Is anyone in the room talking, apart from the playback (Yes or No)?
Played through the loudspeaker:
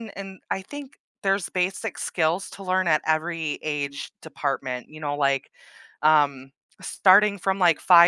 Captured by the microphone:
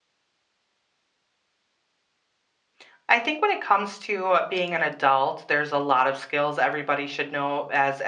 Yes